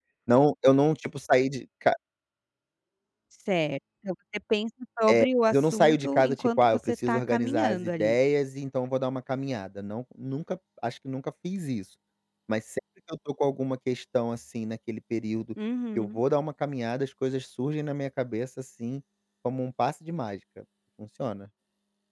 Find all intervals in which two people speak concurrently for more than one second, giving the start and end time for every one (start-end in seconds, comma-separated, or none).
5.1-8.2